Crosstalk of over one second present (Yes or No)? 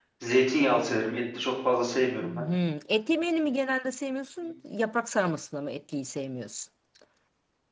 No